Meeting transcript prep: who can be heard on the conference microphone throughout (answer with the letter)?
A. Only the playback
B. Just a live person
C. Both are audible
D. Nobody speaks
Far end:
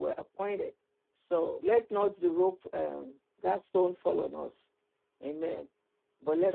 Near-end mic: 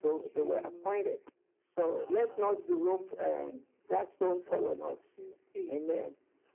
C